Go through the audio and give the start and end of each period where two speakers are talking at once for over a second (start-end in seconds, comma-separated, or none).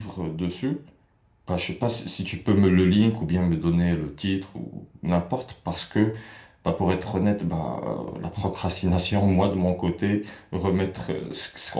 none